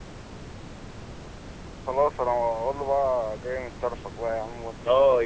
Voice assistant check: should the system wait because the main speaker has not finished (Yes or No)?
No